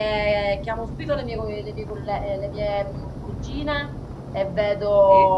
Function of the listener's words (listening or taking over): listening